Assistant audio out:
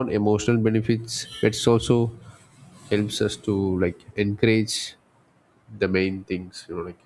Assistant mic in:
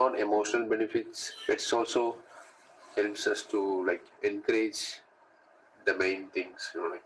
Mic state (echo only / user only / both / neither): echo only